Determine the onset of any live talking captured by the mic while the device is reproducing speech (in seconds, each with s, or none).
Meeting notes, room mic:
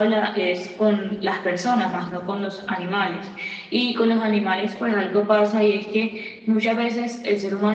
none